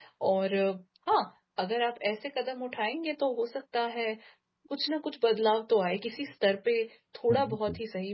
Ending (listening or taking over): listening